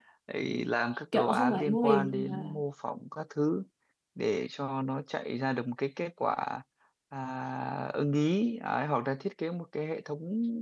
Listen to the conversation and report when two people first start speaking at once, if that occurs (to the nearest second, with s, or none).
1 s